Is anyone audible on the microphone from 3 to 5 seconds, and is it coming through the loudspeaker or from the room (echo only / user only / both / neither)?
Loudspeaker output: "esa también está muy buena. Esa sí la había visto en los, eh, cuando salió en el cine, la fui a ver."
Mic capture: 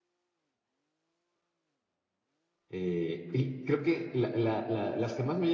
user only